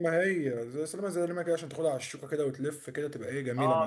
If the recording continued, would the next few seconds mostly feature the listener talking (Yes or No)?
Yes